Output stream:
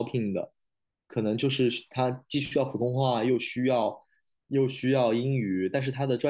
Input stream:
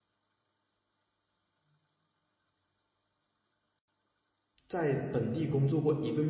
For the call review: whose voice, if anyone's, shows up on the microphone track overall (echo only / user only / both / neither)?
user only